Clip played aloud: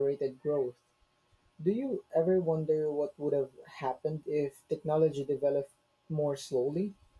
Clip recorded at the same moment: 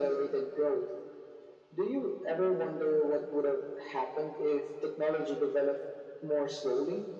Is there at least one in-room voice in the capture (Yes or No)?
No